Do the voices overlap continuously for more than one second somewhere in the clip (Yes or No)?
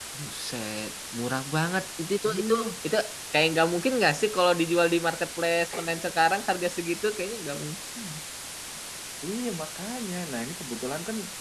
No